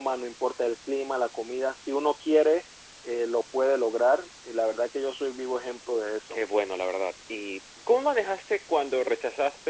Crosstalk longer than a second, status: none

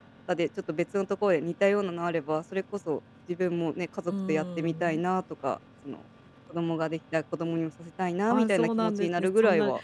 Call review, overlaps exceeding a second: present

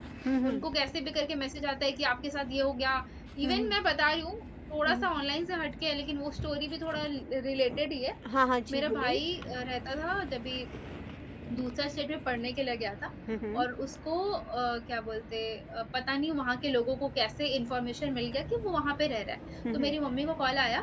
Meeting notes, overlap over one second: none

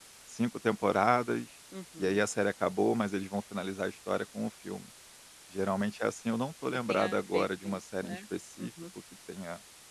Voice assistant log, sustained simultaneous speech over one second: present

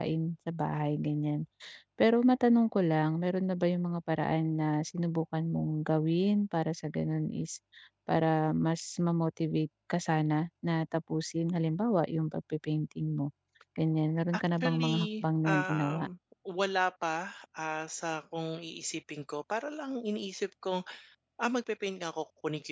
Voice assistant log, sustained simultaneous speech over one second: present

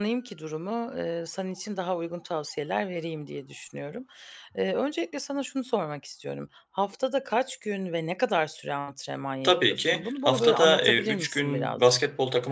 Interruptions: present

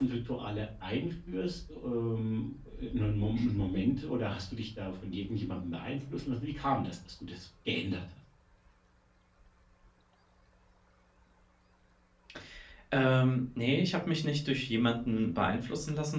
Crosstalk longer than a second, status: none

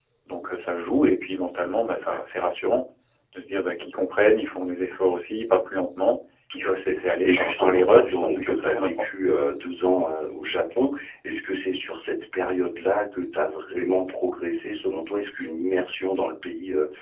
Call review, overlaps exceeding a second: present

